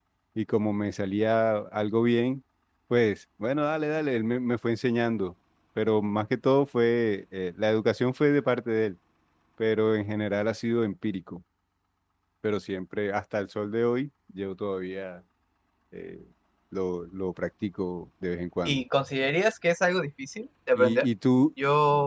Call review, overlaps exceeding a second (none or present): none